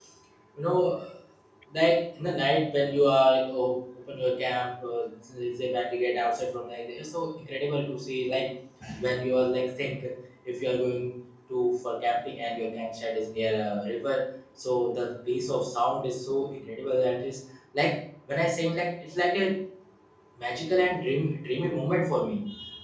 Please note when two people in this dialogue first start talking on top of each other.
none

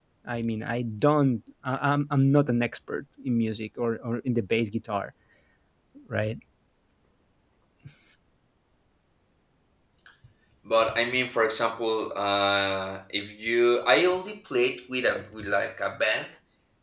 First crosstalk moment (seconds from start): none

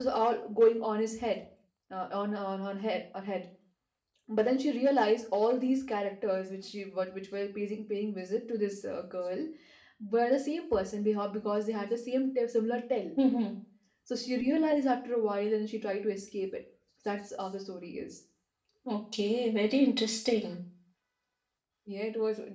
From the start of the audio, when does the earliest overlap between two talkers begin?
none

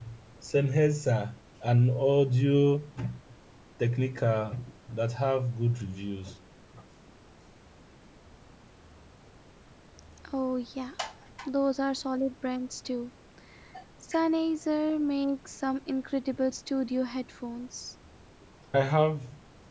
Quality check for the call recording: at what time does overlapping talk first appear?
none

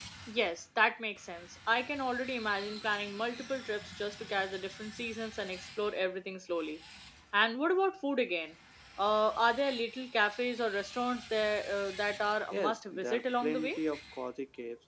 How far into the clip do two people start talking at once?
12.5 s

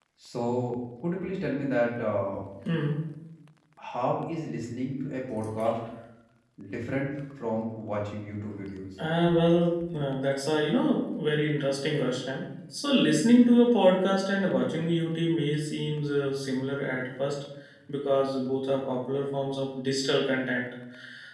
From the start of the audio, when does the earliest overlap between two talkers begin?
none

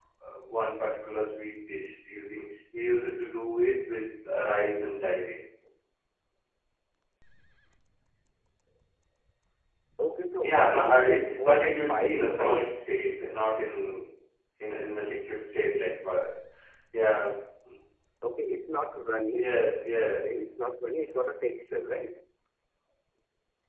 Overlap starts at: 10.4 s

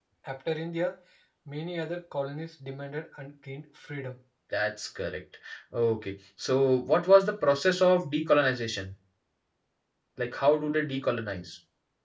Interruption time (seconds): none

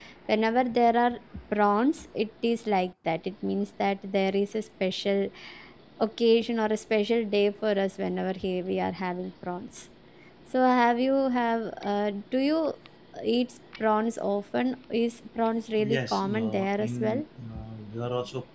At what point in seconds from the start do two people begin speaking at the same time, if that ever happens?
15.7 s

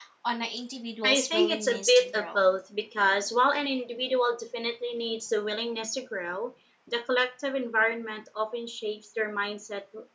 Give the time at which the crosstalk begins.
1.0 s

